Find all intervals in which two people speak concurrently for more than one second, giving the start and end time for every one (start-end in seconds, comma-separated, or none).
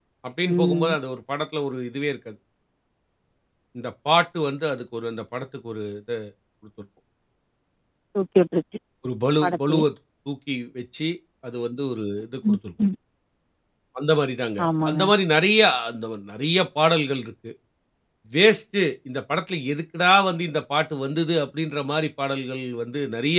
none